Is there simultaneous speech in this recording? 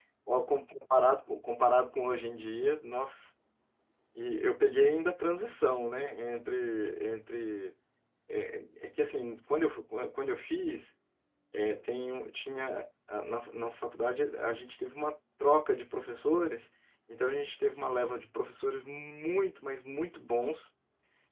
No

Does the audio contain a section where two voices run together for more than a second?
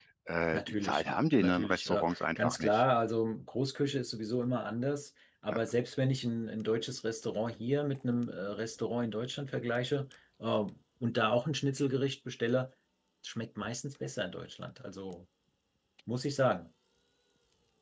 Yes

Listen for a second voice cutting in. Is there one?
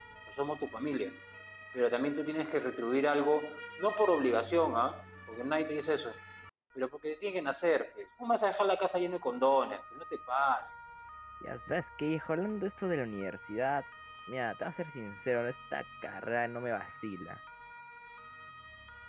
No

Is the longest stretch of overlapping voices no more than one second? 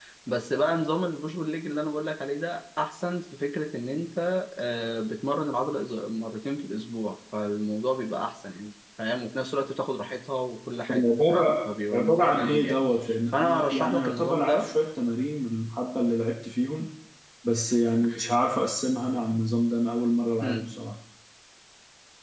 No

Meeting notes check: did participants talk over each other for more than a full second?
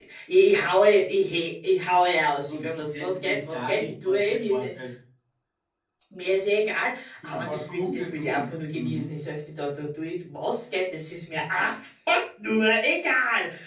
Yes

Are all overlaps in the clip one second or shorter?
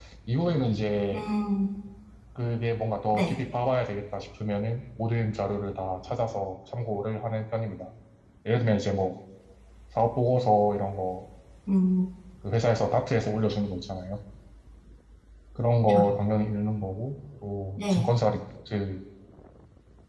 Yes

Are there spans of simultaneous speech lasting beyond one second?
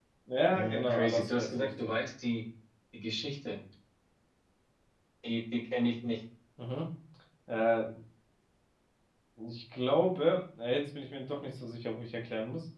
Yes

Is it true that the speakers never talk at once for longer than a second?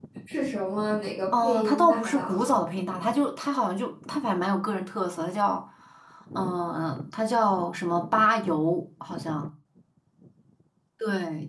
No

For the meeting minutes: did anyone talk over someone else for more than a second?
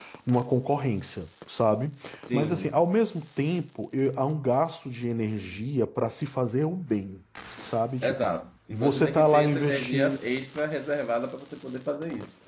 Yes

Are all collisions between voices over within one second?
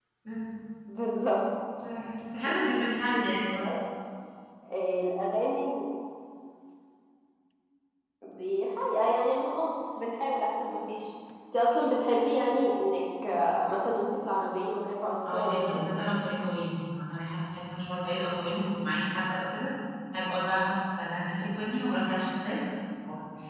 Yes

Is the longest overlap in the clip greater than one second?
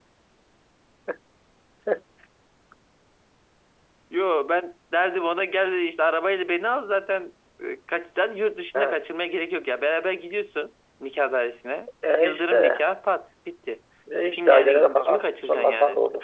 Yes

